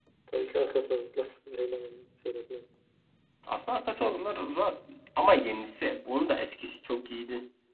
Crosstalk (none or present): none